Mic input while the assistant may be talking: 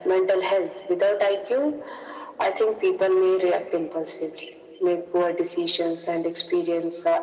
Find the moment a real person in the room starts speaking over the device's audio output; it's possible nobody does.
none

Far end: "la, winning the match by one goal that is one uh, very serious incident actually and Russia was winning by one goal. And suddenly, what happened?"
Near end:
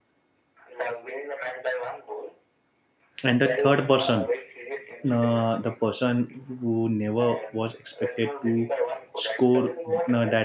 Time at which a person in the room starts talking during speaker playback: 3.2 s

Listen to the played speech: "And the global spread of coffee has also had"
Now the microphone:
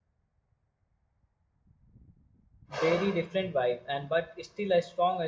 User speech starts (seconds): 2.8 s

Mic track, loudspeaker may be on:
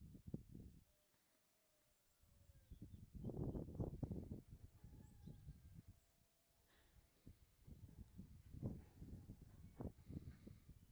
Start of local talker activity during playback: none

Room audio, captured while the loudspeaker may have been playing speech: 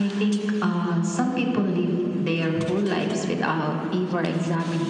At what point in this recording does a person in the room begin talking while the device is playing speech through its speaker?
none

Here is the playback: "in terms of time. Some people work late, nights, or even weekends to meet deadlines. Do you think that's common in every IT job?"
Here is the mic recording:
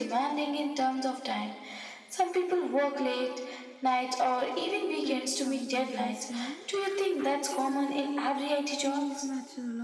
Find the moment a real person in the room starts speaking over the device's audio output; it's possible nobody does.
5.0 s

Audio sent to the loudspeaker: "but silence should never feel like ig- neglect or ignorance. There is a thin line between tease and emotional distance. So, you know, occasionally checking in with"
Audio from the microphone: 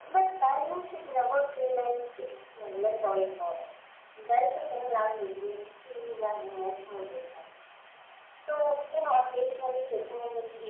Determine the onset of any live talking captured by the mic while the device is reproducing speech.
none

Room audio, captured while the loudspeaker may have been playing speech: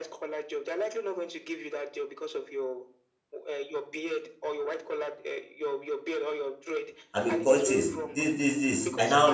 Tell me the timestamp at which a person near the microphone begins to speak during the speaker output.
7.1 s

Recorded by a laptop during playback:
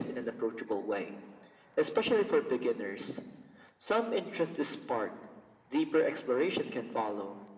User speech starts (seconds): none

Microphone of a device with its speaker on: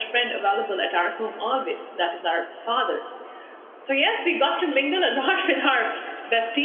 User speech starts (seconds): none

